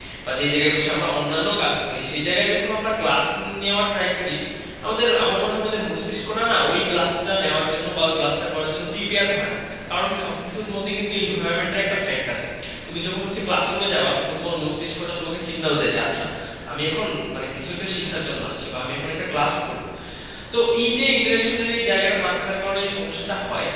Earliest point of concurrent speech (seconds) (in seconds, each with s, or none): none